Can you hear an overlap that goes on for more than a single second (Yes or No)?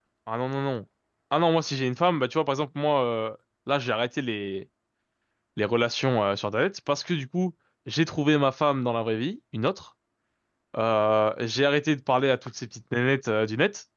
No